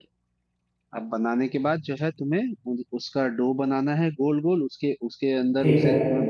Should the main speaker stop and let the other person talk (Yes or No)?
No